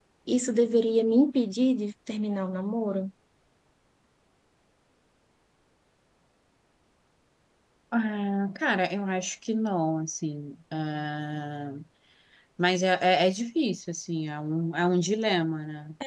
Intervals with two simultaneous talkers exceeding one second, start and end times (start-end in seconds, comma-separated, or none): none